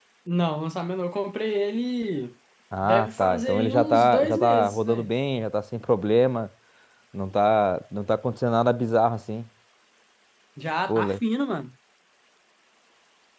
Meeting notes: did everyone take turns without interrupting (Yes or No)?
No